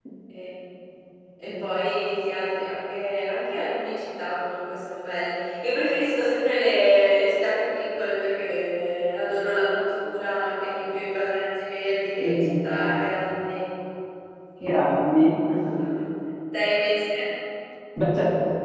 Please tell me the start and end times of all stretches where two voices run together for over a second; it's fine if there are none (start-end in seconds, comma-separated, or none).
none